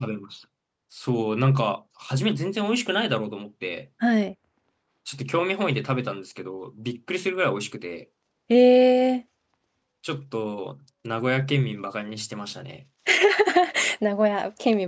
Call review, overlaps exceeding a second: none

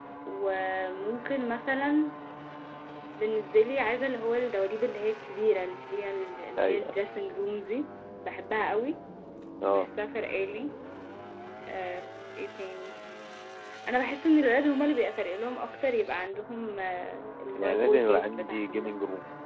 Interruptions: present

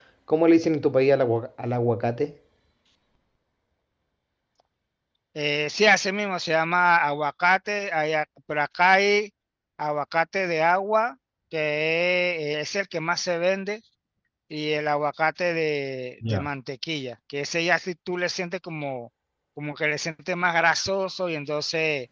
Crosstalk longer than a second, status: none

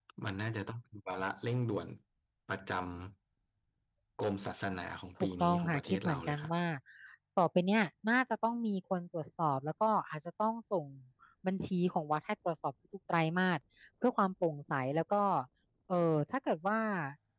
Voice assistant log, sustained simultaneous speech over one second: present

